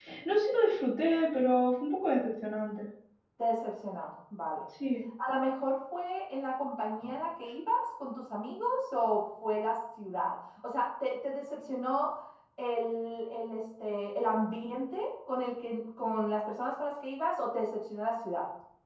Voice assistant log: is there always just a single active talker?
Yes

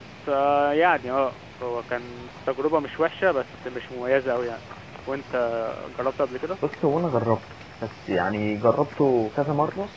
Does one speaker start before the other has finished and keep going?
No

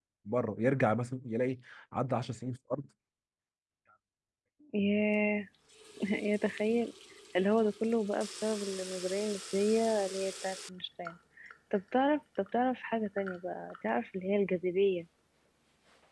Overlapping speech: No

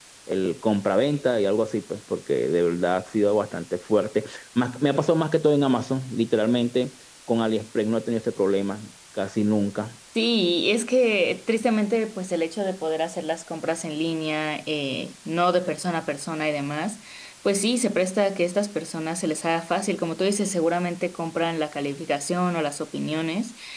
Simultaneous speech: No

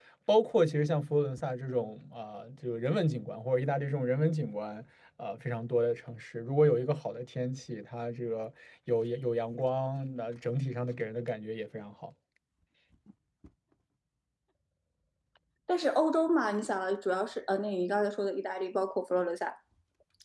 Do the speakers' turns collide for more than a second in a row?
No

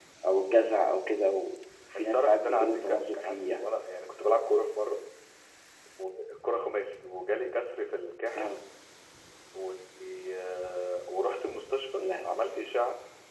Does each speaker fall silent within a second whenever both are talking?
No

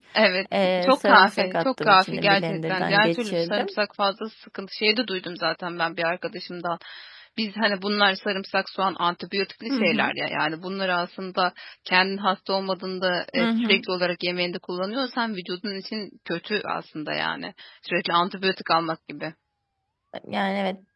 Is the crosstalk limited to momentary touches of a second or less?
No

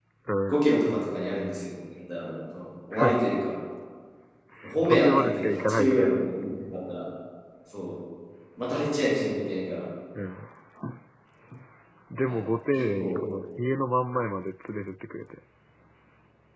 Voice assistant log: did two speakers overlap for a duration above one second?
Yes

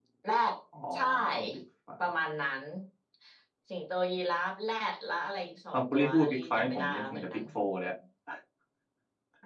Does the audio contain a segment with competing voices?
Yes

